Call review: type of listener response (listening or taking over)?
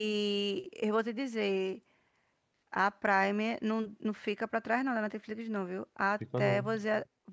listening